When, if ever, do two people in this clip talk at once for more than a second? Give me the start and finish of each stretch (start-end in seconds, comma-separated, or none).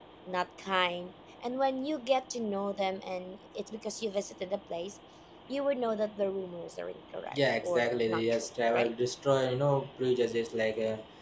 7.3-8.9